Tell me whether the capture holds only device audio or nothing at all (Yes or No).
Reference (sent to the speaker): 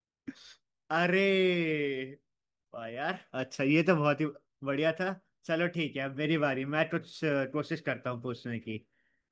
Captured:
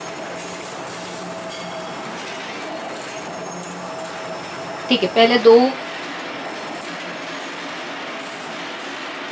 No